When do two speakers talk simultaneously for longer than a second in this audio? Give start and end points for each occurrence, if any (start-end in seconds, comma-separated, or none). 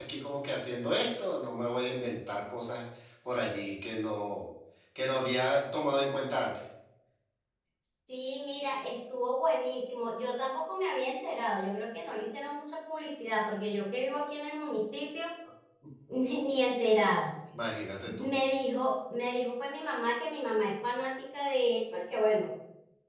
none